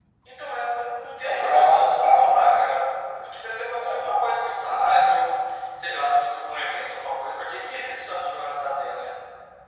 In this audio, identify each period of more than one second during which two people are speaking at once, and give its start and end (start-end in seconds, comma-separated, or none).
1.2-2.7